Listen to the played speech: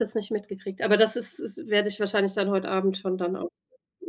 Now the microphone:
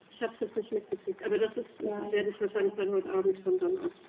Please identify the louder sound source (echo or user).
echo